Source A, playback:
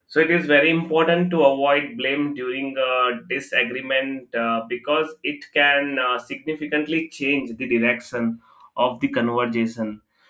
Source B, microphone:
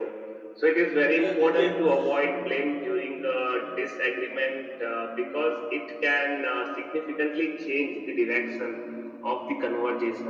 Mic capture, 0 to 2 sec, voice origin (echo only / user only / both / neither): both